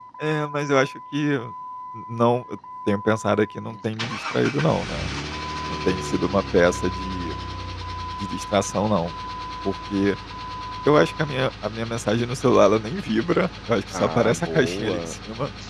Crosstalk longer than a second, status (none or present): present